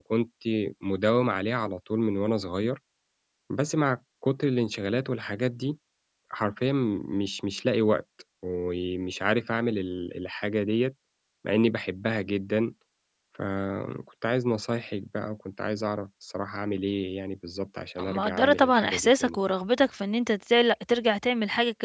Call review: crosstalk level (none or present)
present